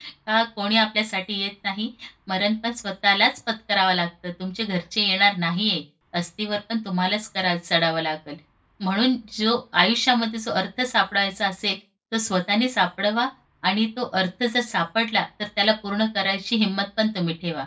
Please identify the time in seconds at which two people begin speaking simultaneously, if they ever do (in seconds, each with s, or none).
none